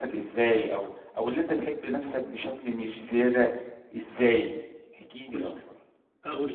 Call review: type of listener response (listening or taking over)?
taking over